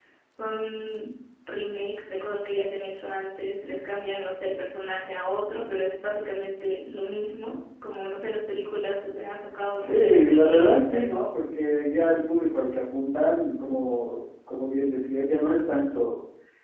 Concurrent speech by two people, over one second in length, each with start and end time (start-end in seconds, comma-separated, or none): 9.8-11.1